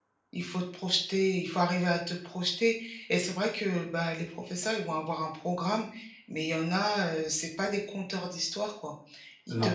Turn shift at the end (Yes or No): No